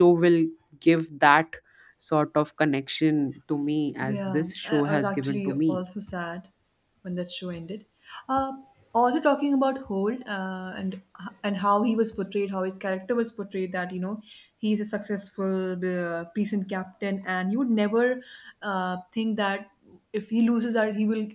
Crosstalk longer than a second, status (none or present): present